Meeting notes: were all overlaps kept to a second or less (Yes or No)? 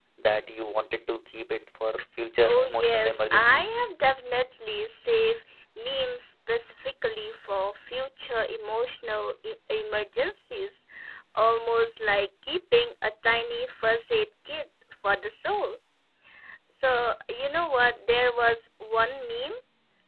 No